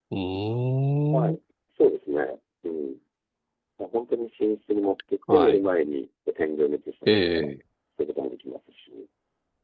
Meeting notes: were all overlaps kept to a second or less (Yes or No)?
Yes